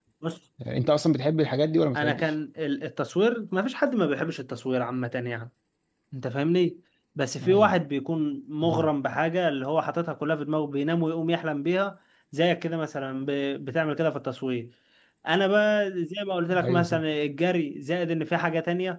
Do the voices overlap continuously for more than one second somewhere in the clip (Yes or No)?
No